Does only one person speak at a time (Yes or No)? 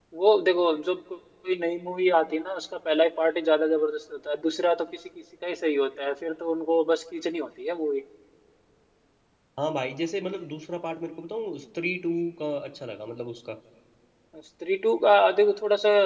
Yes